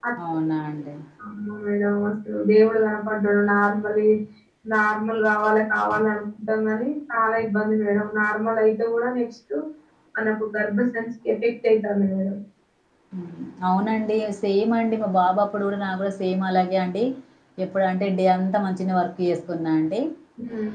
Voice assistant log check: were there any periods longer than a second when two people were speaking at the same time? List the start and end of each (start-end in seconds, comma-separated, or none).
none